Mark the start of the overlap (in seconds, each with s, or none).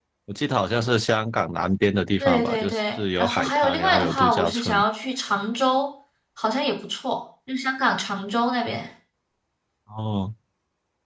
2.2 s